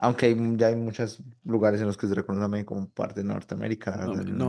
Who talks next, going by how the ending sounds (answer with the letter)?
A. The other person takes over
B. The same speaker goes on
A